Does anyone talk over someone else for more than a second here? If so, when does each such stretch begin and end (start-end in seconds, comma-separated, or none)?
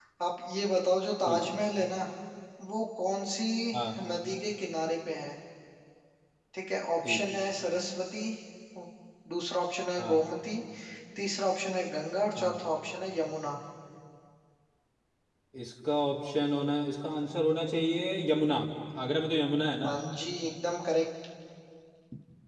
none